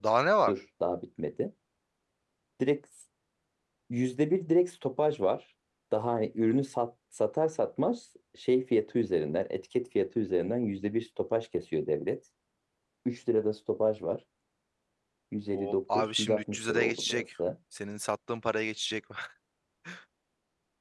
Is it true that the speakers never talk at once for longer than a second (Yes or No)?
No